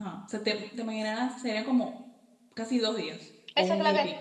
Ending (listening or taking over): taking over